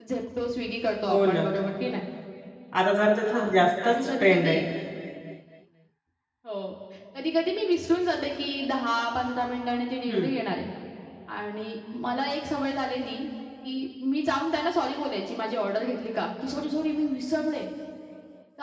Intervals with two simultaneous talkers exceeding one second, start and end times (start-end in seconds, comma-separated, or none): 3.3-4.6